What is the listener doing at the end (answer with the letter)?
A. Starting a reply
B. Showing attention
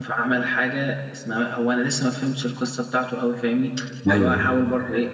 B